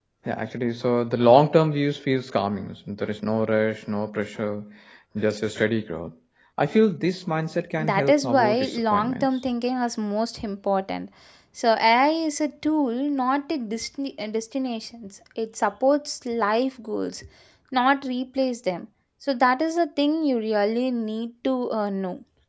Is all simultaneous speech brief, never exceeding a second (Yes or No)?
No